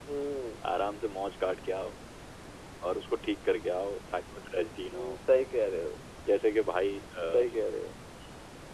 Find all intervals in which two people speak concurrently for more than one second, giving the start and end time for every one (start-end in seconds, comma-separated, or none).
none